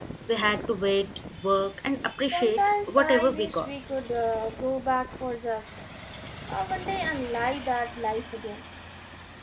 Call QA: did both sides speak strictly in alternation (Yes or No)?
No